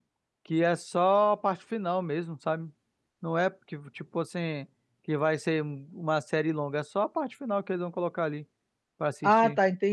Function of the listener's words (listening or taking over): taking over